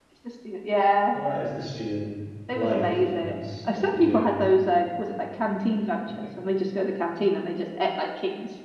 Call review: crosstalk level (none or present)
present